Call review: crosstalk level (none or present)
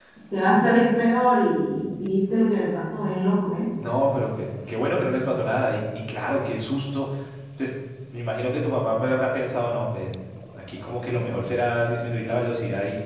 none